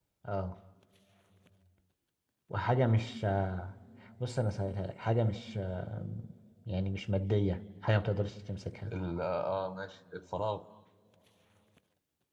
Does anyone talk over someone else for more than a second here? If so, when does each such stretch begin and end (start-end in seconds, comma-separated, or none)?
none